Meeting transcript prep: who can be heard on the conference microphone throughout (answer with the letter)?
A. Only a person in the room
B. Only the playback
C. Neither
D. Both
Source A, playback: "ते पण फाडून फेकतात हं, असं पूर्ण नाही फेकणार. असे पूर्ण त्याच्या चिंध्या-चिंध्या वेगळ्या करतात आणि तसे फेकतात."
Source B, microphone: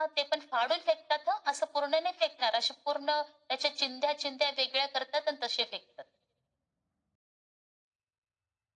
B